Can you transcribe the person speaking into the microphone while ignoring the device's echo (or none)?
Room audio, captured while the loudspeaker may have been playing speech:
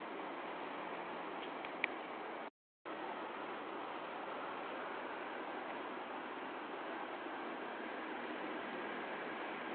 none